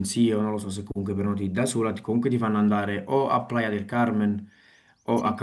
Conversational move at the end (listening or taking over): listening